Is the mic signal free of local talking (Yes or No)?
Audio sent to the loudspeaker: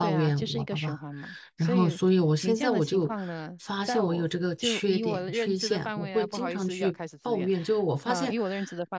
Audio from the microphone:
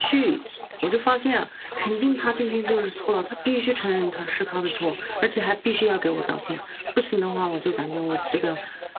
No